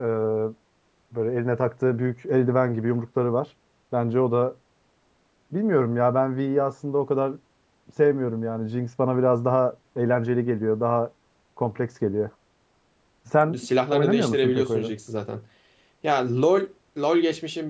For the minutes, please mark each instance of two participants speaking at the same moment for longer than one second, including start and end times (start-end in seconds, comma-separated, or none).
13.6-14.9